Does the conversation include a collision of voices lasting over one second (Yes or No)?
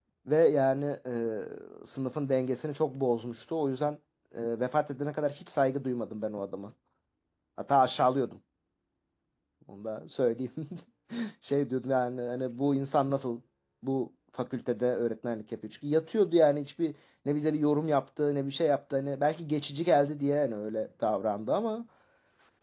No